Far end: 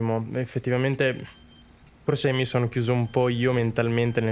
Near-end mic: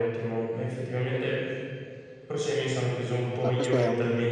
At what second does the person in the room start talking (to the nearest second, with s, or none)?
3 s